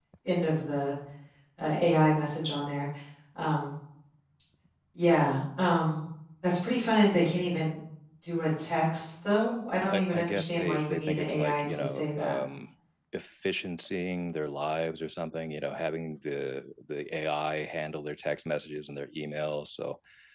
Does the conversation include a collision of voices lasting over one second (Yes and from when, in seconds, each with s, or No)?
Yes, from 9.9 s